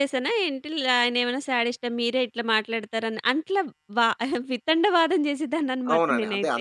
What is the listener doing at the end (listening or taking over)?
taking over